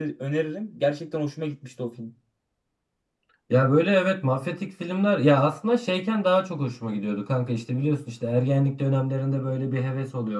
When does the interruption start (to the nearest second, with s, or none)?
none